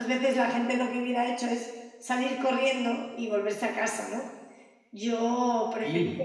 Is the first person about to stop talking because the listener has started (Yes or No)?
No